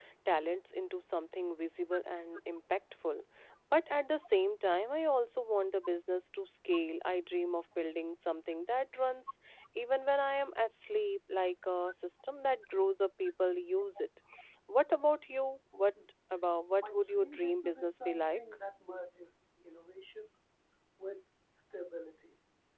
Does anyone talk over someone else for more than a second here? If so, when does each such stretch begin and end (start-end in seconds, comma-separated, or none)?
16.8-18.4